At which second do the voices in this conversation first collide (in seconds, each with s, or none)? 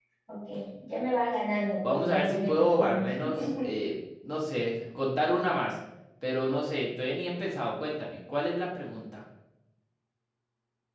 1.8 s